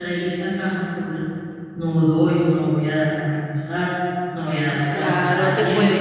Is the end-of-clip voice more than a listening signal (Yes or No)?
Yes